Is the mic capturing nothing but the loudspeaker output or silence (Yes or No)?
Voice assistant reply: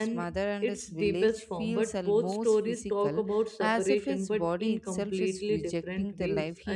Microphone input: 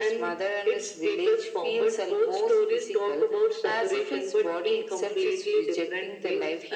Yes